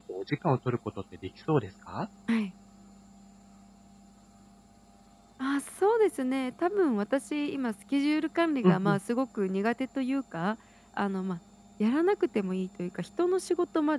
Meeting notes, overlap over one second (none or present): none